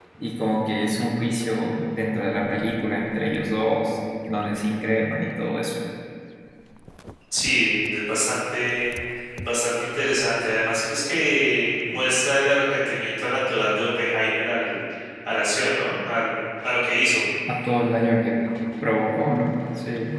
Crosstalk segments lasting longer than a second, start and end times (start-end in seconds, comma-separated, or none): none